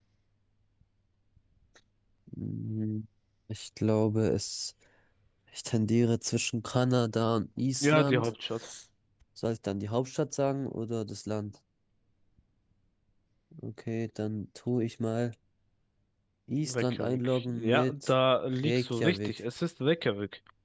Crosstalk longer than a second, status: present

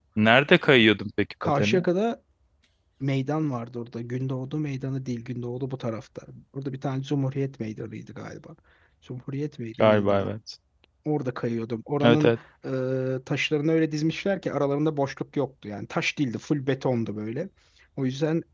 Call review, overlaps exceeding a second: none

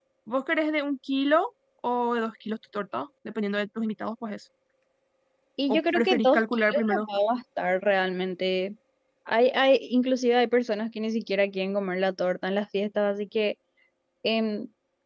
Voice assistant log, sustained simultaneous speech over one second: present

